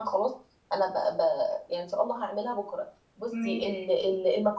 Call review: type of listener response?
listening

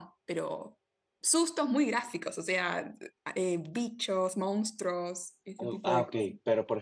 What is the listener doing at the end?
taking over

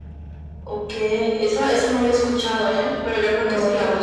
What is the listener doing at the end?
listening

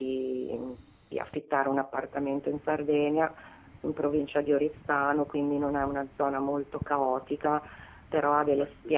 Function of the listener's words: listening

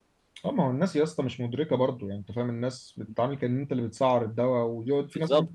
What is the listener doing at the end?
listening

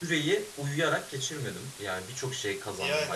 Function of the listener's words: listening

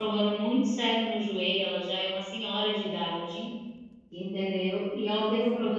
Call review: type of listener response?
listening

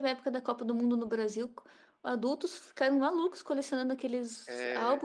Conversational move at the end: listening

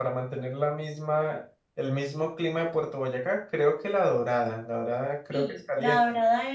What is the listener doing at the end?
taking over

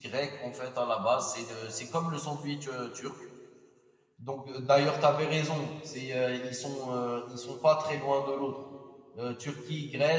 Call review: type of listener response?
listening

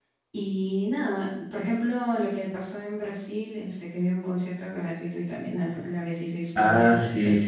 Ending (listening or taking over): taking over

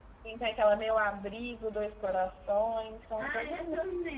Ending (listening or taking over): taking over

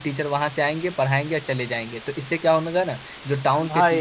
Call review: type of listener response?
listening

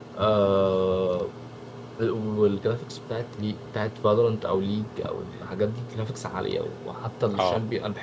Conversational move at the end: listening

